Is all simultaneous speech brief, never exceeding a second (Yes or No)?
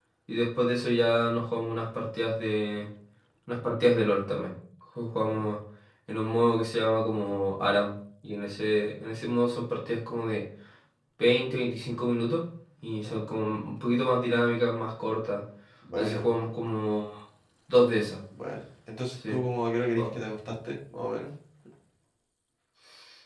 Yes